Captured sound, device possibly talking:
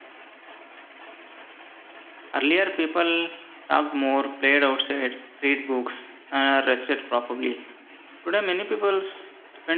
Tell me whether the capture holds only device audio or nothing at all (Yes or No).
No